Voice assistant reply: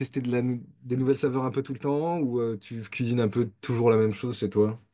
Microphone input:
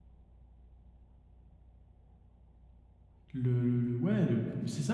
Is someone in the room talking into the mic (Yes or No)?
Yes